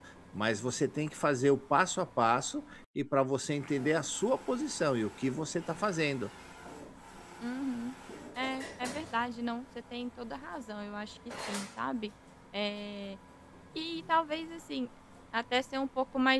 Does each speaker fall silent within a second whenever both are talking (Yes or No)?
Yes